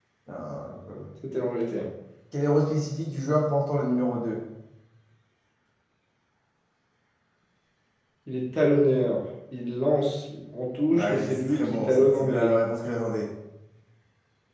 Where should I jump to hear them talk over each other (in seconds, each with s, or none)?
10.9 s